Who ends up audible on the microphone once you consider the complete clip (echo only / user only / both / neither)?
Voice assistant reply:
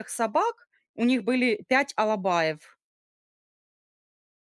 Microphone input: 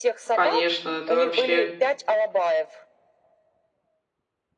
both